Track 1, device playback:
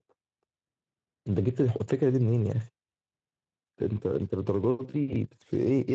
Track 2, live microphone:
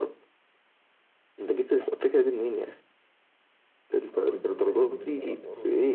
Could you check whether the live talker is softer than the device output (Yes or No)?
Yes